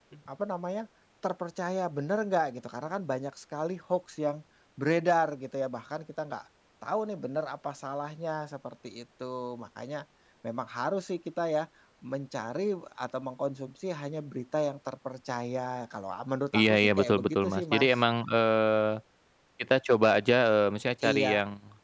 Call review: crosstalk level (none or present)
present